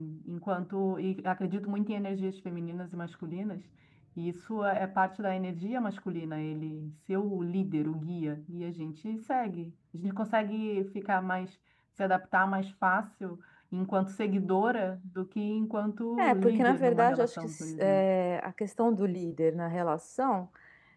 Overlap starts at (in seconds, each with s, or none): 16.2 s